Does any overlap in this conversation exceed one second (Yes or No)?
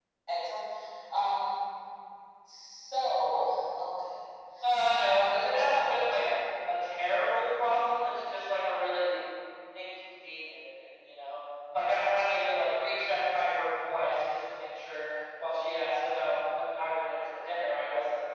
Yes